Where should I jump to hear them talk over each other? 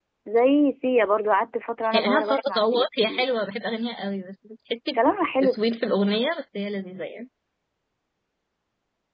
2 s

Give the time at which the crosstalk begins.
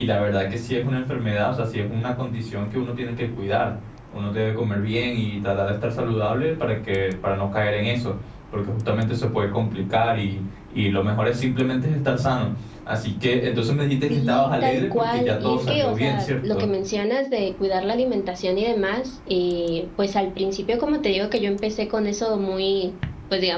14 s

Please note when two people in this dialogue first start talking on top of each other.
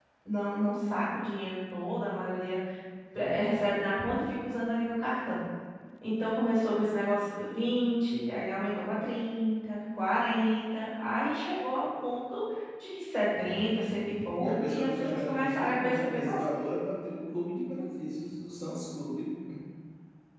13 s

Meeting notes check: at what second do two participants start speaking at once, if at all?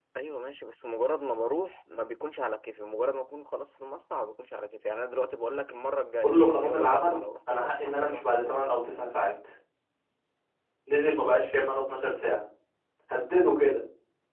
6 s

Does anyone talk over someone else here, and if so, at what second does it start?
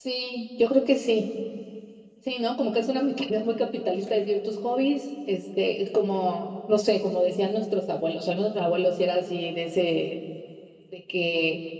none

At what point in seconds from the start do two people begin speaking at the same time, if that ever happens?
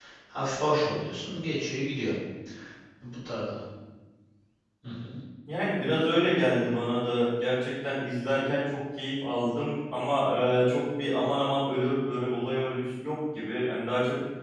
none

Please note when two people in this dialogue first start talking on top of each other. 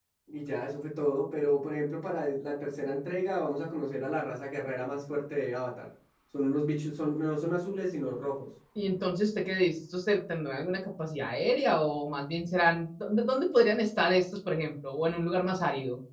none

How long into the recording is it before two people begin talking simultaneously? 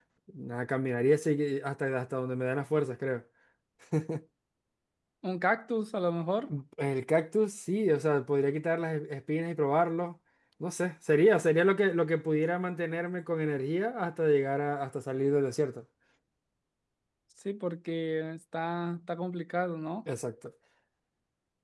none

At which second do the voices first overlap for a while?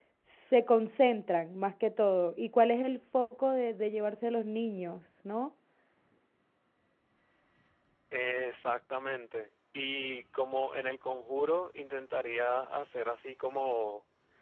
none

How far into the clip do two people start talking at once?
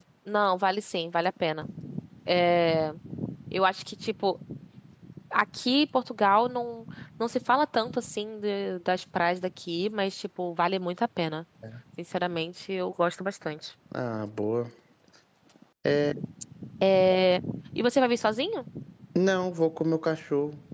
none

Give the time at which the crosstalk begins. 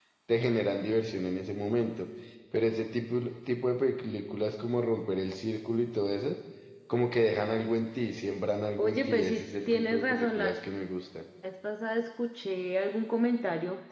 9 s

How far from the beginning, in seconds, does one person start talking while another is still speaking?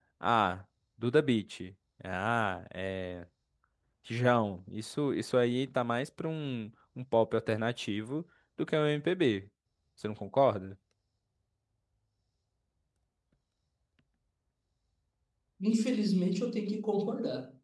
none

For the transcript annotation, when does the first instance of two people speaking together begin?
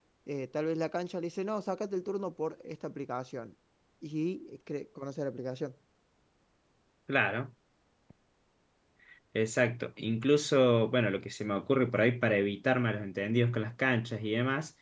none

